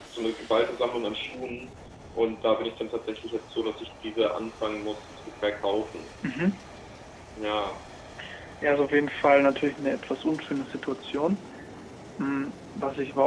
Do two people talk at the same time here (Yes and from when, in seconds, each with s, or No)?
No